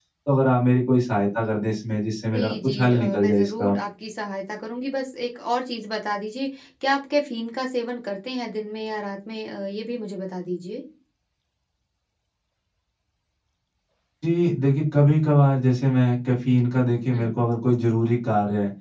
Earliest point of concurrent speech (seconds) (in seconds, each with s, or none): 2.2 s